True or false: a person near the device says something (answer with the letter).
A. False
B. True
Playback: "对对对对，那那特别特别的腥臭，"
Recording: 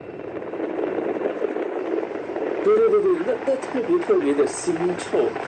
A